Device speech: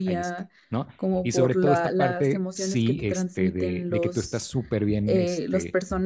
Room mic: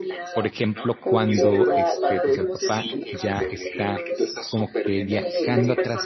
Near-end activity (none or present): present